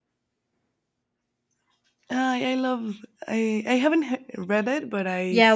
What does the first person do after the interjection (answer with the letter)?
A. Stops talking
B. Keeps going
A